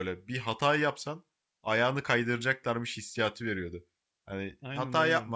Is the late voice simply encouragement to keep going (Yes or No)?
Yes